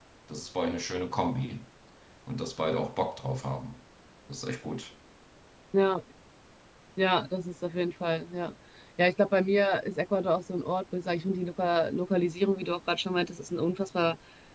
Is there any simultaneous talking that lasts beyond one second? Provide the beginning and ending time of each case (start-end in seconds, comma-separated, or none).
none